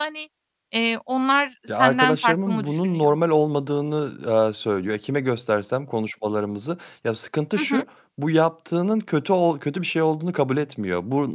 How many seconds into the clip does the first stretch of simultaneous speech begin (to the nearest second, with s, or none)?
2 s